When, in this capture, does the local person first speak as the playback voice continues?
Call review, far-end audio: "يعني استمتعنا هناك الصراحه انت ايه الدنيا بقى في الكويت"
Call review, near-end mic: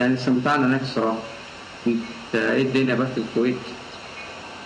none

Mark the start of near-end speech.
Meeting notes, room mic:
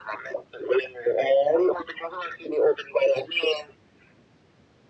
none

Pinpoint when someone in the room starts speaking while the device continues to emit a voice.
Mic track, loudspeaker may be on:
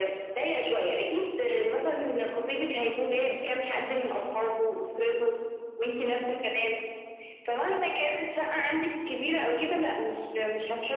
none

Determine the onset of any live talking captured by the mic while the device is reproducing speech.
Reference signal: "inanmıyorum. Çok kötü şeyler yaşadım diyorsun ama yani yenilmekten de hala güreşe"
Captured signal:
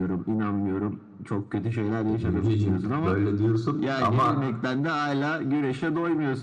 2.1 s

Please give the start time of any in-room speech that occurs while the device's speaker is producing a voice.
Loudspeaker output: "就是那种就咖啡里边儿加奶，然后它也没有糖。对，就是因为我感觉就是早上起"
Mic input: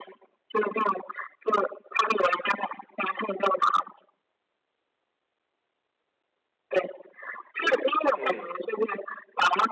8.2 s

